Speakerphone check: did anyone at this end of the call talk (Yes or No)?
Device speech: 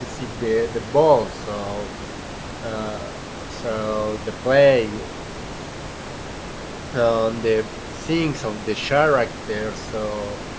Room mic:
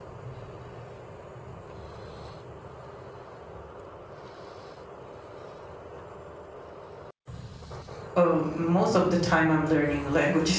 Yes